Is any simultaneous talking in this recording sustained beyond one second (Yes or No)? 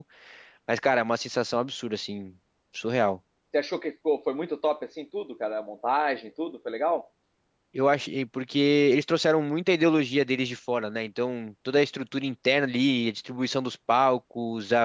No